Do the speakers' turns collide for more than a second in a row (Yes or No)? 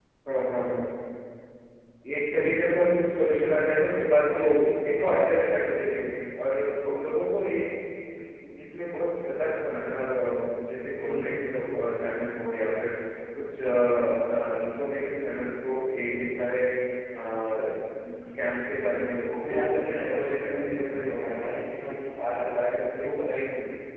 Yes